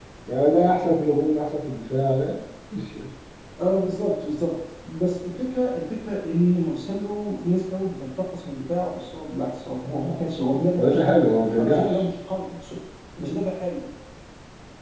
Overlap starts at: 10.8 s

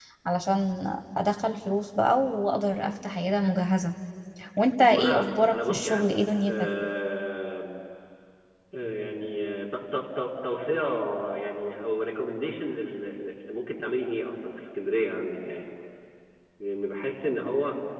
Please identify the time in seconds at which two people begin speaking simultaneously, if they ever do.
4.9 s

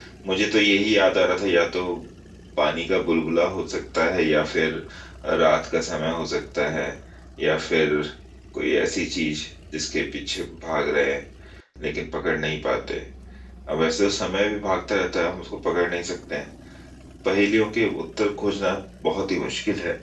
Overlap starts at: none

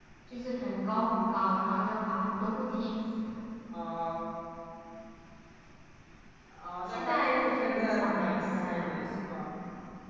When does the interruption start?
6.9 s

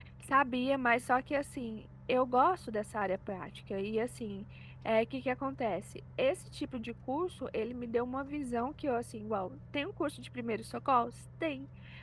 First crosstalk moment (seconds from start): none

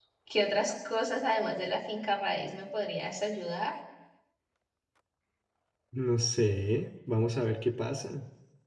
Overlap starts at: none

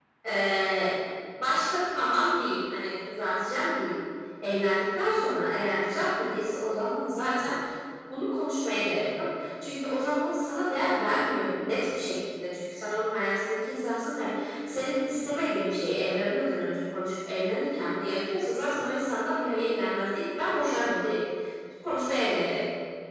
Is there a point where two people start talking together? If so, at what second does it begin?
none

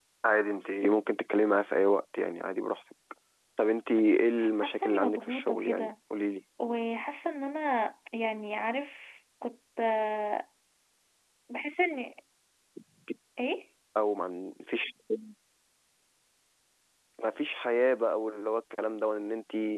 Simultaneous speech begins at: 4.4 s

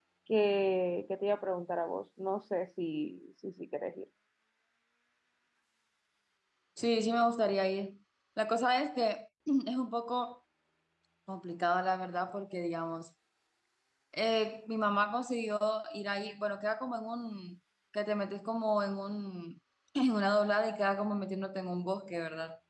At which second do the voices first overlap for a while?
none

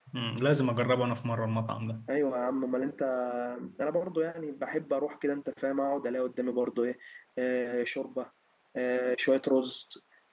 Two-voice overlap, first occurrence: none

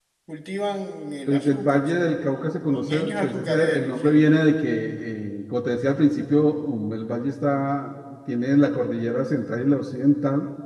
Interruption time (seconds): 1.3 s

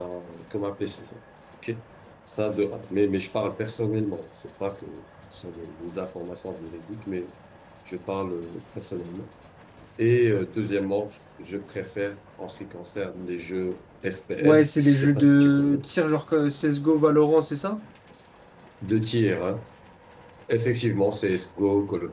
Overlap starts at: 14.4 s

